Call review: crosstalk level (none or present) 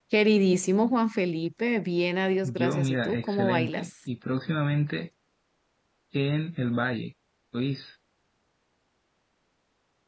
present